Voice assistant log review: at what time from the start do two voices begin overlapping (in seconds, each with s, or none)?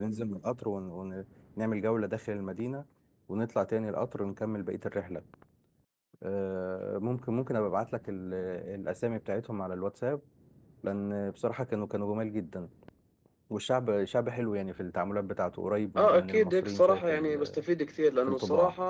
16.0 s